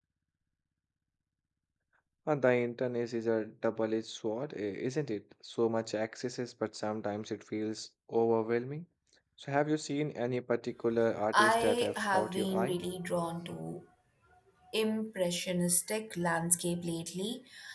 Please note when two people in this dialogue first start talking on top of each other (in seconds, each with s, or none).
11.3 s